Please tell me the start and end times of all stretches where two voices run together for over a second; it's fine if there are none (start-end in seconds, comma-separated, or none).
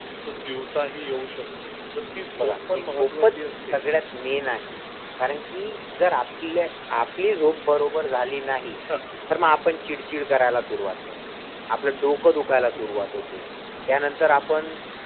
2.4-3.8